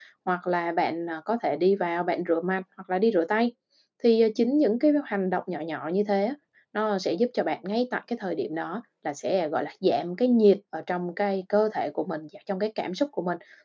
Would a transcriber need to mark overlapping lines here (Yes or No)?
No